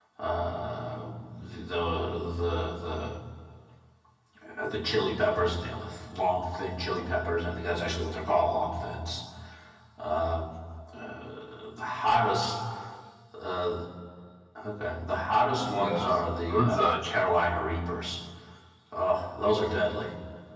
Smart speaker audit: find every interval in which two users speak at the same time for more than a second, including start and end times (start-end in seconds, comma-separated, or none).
15.6-17.2